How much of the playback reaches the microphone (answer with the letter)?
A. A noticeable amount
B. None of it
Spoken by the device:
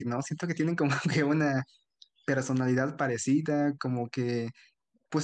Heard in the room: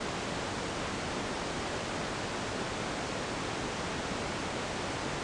B